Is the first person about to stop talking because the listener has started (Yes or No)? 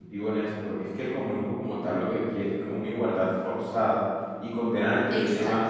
No